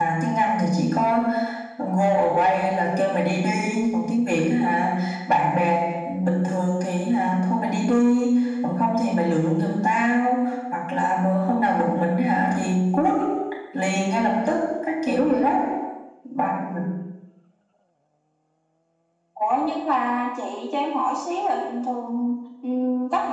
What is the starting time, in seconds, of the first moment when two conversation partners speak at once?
none

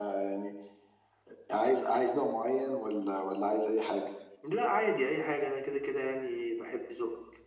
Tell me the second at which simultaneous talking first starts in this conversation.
none

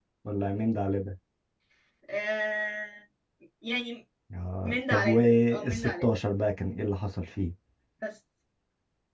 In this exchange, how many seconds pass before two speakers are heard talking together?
4.7 s

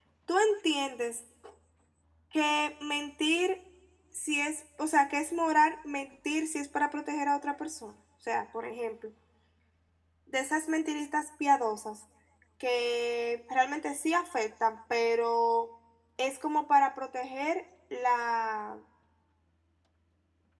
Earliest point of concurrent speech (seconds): none

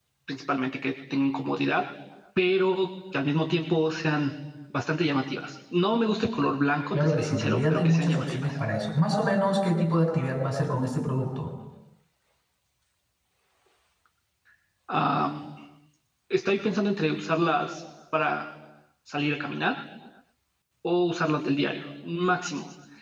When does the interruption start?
6.9 s

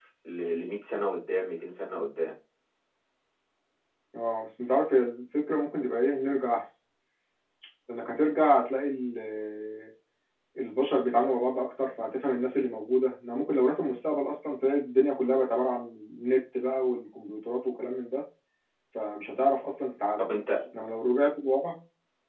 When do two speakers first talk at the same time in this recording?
none

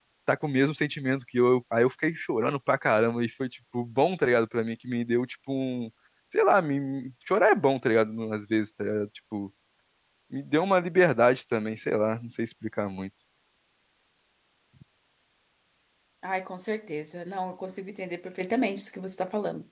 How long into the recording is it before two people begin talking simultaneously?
none

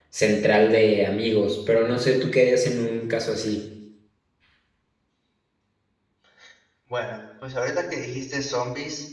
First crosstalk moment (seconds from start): none

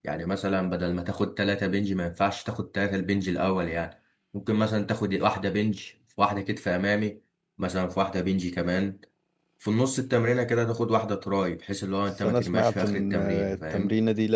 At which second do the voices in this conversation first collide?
12.2 s

